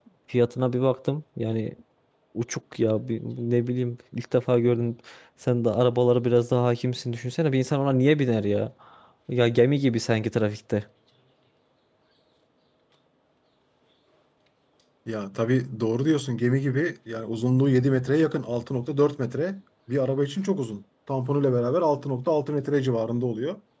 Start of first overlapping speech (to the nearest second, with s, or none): none